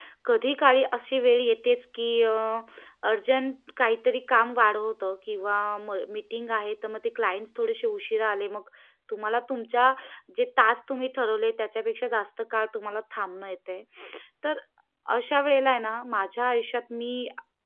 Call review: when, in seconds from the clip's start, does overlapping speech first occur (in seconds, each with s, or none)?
none